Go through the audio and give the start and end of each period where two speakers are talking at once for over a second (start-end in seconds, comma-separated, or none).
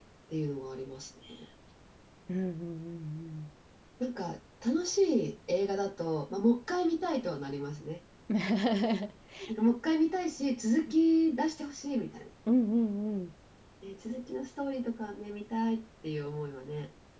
none